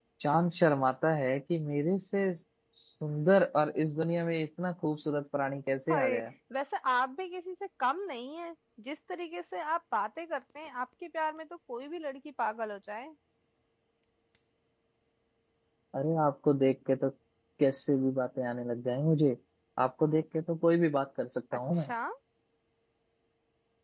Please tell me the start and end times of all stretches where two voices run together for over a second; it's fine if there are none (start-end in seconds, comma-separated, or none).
none